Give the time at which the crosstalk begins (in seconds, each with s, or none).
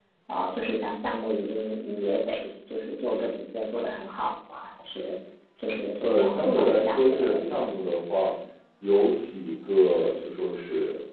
6.0 s